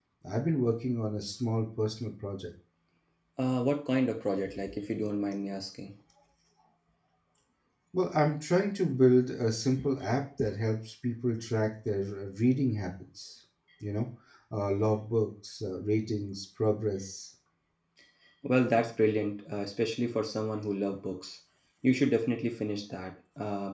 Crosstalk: none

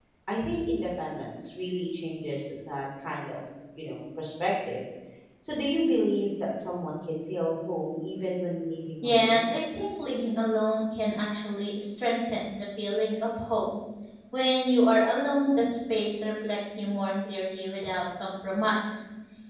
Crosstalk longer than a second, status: none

